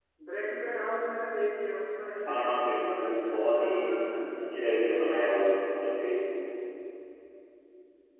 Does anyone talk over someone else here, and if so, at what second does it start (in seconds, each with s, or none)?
2.2 s